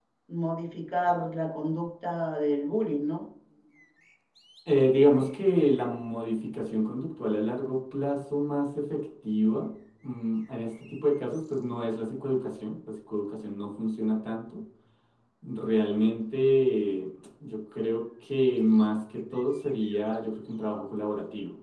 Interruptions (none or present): none